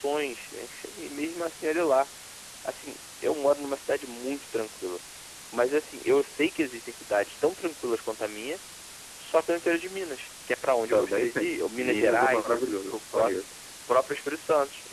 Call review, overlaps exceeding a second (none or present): present